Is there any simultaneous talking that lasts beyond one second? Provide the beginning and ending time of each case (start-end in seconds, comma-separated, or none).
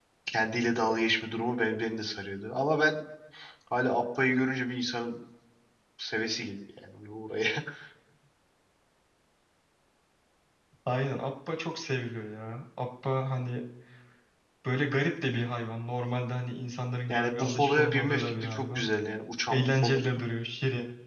17.1-18.9